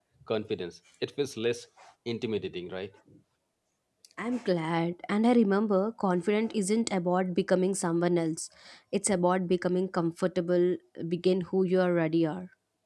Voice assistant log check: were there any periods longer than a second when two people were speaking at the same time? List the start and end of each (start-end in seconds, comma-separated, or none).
none